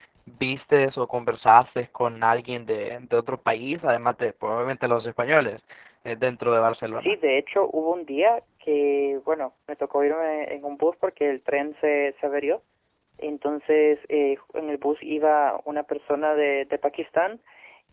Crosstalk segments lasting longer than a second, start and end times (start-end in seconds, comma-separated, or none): none